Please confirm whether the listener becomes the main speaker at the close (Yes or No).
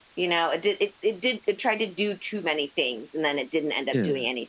No